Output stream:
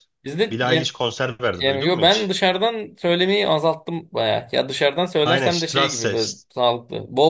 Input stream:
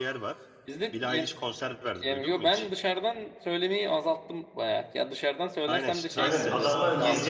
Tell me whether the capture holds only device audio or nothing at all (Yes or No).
No